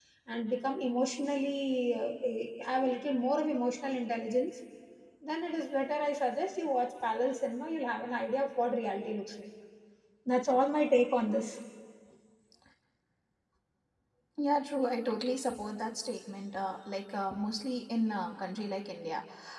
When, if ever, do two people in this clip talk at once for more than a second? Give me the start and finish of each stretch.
none

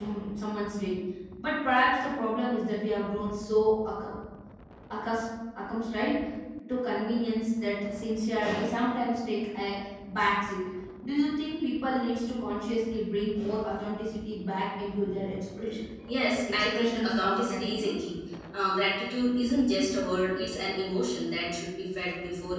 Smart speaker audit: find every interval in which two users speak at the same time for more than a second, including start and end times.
16.5-17.9

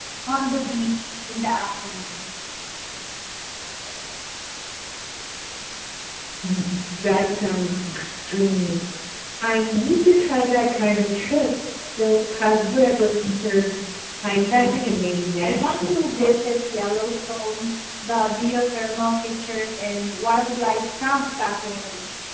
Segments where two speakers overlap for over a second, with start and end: 14.4-16.3

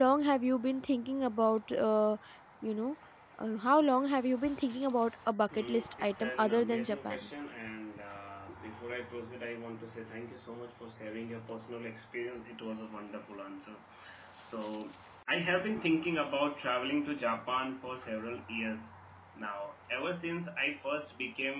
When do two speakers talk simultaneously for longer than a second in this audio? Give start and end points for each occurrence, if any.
5.5-7.3

